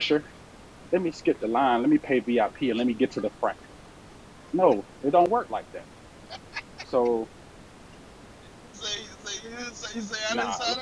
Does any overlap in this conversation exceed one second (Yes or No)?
No